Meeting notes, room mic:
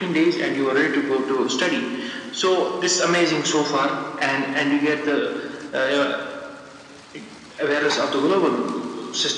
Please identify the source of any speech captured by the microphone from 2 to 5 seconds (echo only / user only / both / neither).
echo only